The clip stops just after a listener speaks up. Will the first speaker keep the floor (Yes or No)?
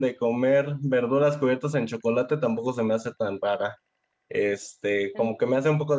Yes